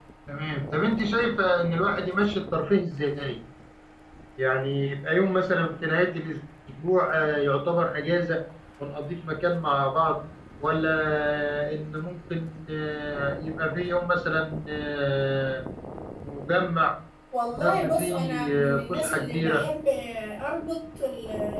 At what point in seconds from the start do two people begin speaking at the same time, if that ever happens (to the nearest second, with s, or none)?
18 s